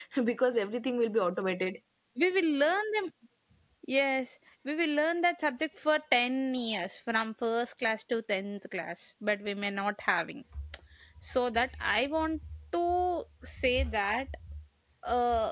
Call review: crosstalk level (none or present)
none